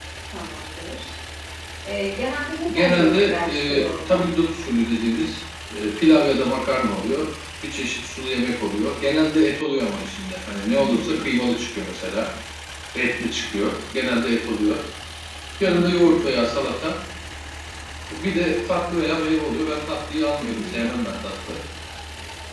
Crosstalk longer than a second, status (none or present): present